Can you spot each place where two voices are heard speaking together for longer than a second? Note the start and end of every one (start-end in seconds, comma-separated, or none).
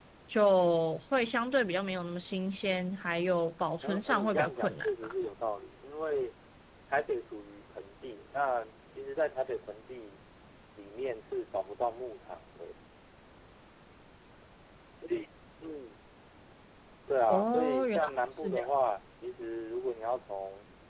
3.8-5.1, 17.3-18.7